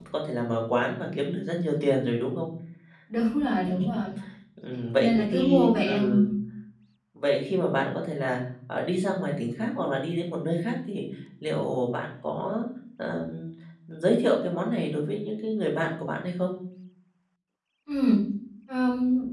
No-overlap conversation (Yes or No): No